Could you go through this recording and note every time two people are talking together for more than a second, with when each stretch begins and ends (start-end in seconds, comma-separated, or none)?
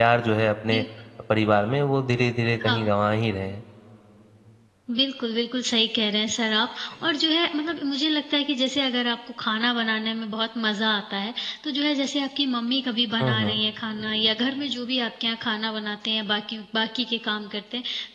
none